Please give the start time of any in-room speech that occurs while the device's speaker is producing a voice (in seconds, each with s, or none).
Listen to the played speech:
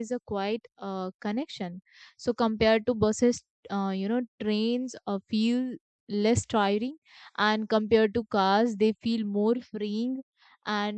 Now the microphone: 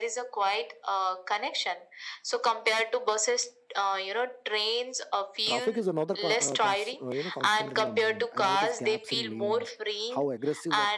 5.5 s